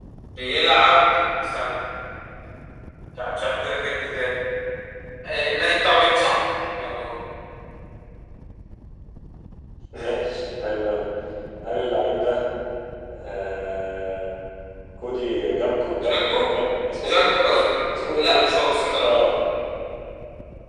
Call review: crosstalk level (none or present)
present